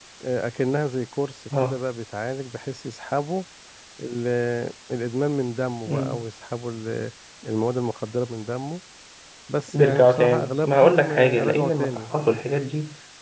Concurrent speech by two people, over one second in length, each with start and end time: 9.7-12.0

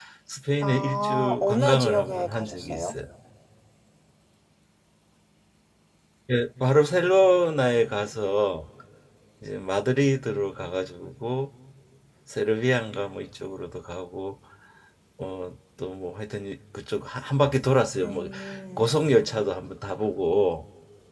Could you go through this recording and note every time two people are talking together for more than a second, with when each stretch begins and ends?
0.6-2.9

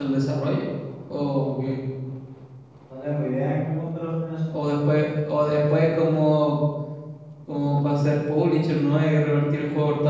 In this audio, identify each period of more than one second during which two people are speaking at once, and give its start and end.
none

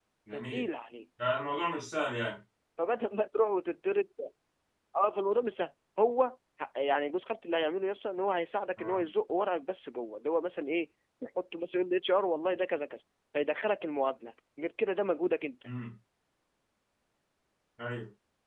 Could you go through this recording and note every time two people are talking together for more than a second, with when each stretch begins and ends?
none

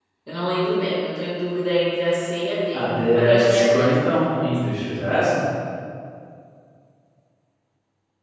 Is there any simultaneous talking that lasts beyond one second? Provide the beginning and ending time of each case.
2.7-4.0

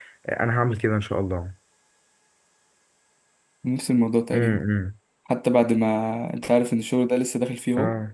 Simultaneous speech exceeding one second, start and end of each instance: none

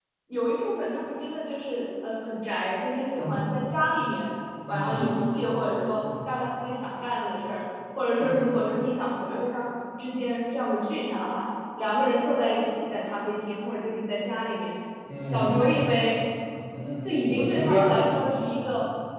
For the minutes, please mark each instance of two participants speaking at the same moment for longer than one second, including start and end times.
17.0-18.3

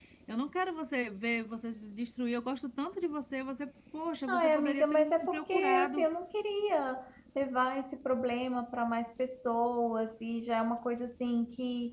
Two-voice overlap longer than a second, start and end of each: 4.3-6.1

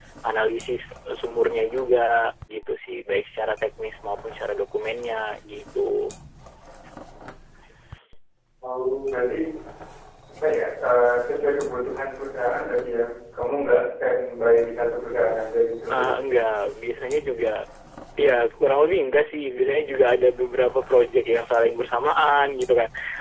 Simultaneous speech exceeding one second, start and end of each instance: none

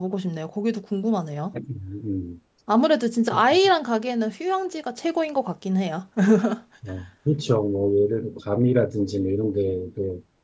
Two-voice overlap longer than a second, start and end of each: none

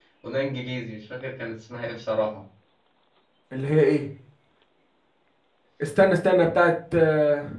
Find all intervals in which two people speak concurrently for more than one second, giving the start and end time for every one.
none

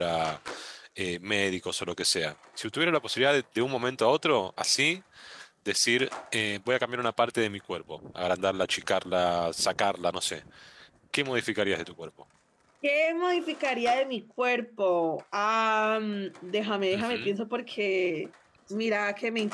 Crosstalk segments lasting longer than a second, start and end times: none

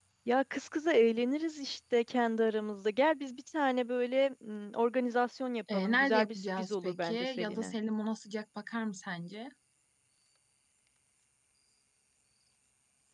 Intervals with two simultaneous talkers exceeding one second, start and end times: 5.7-7.8

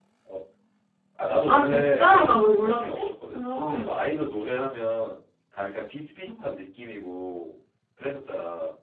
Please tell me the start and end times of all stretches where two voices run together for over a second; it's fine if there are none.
1.5-3.0

